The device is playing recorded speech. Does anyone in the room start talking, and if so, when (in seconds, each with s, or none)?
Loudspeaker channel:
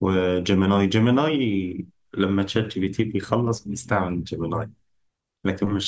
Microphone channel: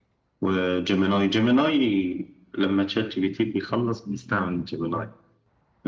none